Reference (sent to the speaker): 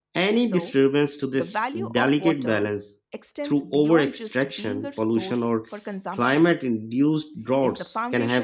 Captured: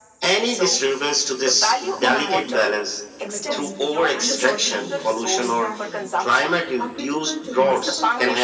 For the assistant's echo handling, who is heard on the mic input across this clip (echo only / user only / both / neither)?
both